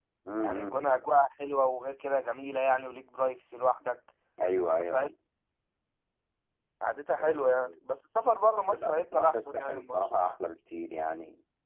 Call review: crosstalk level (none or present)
present